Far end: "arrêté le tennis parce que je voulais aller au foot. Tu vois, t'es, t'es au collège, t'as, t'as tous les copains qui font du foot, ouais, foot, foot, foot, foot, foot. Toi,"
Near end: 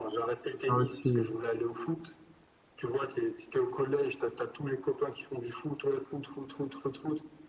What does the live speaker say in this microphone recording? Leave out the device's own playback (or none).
Ah, Ok.